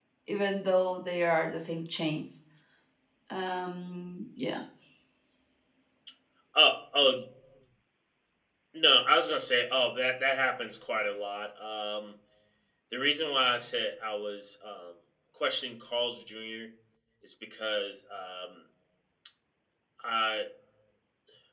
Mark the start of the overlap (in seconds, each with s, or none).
none